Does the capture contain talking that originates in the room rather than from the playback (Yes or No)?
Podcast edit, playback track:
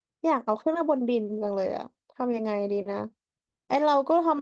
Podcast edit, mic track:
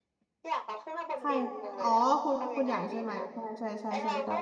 Yes